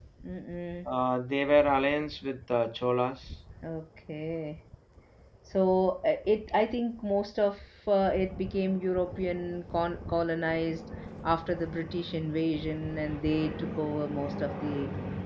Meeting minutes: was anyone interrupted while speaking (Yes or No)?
No